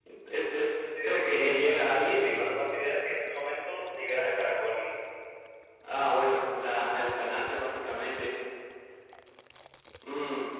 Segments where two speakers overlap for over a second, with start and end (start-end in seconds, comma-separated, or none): 1.0-2.5